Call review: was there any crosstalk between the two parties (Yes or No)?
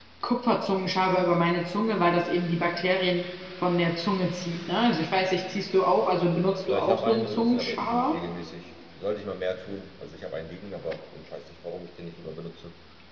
Yes